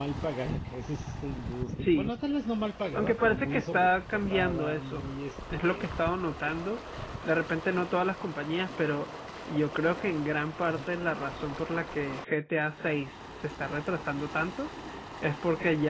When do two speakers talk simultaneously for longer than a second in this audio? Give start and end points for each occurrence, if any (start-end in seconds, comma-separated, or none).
2.9-5.1